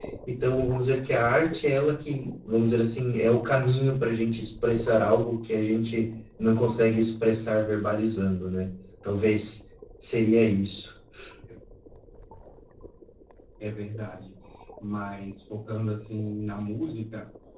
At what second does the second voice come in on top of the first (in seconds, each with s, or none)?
none